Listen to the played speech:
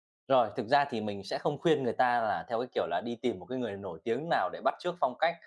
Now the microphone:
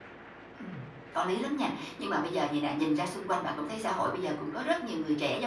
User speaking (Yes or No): Yes